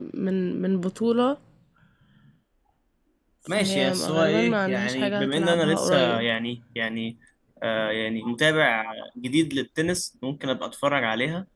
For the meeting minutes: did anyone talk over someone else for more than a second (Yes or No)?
Yes